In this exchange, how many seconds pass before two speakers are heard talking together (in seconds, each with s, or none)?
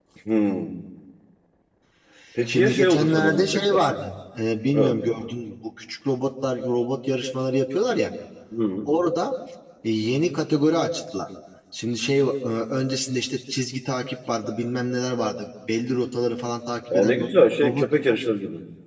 2.5 s